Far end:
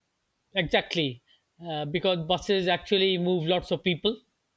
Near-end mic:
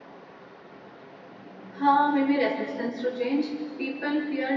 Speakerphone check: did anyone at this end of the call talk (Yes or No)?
Yes